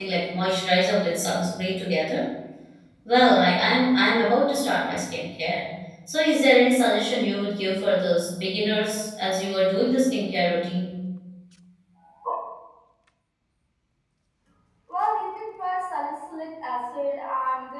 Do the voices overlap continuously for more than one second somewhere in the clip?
No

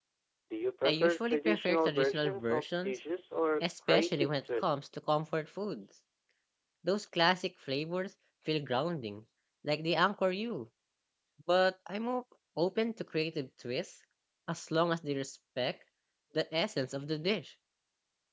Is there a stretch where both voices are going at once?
Yes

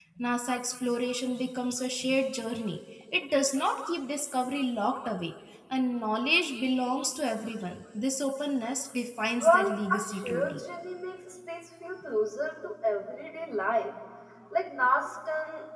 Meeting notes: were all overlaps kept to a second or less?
No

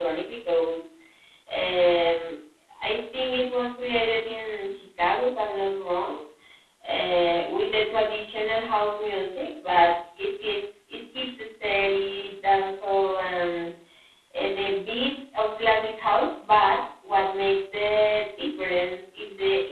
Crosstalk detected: No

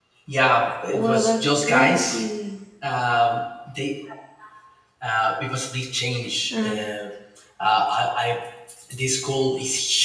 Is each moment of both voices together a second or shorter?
No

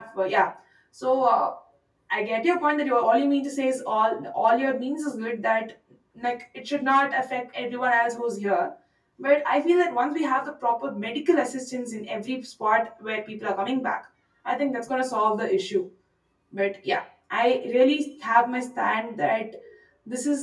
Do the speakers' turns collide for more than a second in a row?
No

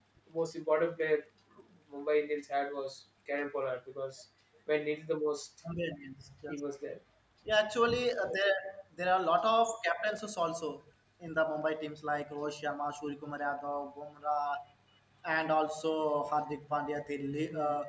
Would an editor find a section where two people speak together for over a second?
No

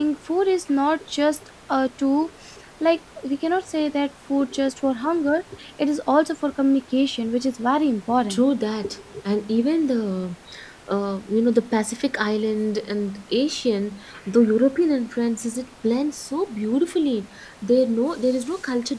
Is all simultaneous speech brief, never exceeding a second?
Yes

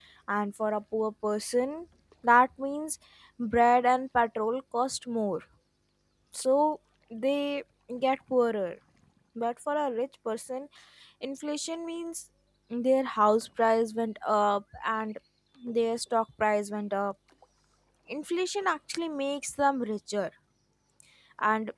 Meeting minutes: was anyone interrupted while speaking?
No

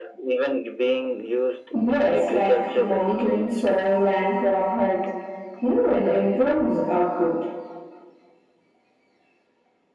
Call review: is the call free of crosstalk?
No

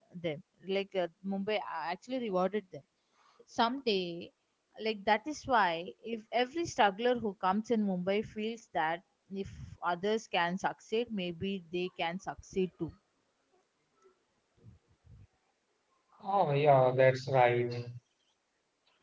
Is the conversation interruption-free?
Yes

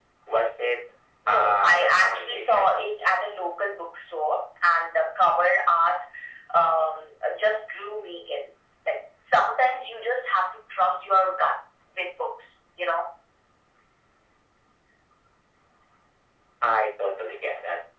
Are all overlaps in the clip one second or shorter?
No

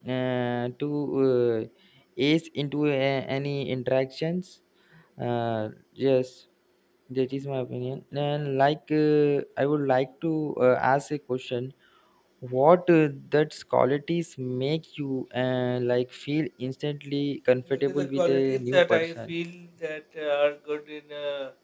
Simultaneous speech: Yes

